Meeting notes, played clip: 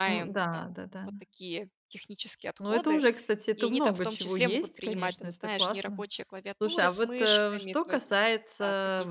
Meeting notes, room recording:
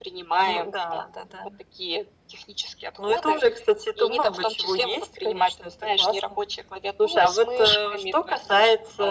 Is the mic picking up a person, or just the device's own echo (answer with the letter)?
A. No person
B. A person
A